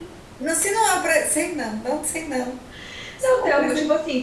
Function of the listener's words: taking over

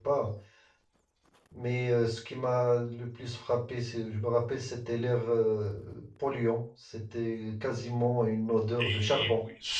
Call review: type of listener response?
taking over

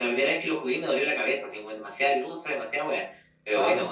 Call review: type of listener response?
taking over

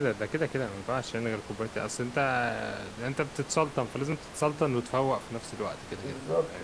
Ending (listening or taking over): taking over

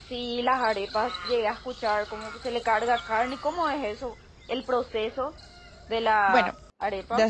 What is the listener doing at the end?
taking over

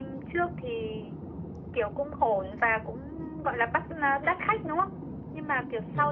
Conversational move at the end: listening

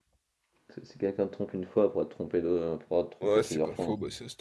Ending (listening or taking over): taking over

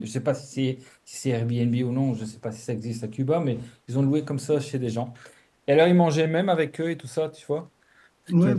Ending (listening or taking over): taking over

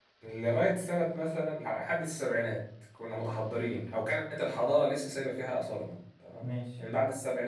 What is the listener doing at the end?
listening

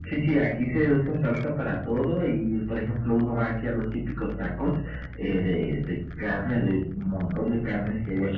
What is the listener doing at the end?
taking over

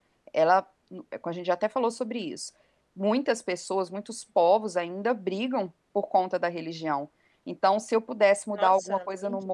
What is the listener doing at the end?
listening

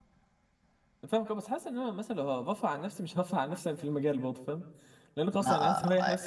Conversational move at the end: taking over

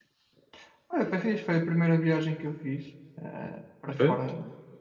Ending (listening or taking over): listening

